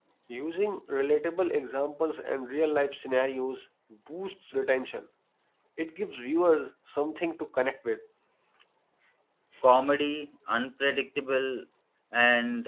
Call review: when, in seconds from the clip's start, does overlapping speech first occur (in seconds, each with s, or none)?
none